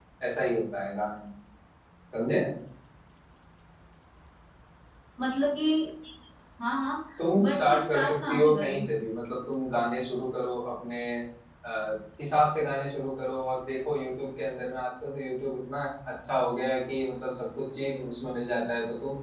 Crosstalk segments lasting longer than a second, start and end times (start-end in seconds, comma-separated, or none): 7.4-8.8